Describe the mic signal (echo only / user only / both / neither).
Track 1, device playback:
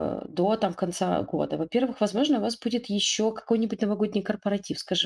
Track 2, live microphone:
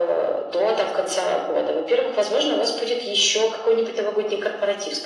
echo only